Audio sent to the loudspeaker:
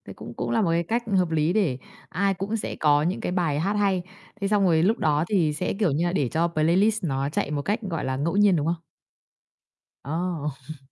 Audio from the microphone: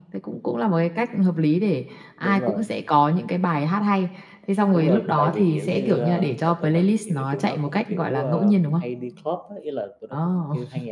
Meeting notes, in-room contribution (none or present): present